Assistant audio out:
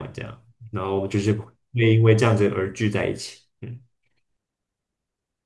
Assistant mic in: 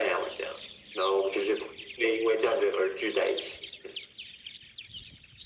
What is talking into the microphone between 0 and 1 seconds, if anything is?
echo only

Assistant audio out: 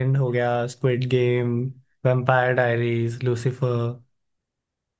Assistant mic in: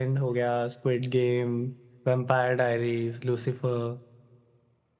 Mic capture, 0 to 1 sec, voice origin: echo only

